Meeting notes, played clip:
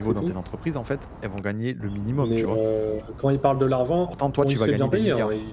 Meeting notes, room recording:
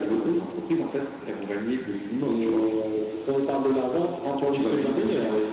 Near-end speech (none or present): none